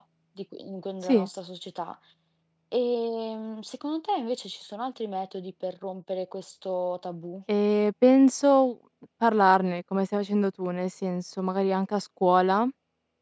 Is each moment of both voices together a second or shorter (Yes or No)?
Yes